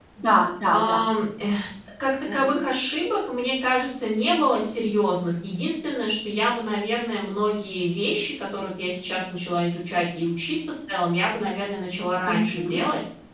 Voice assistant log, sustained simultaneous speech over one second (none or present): none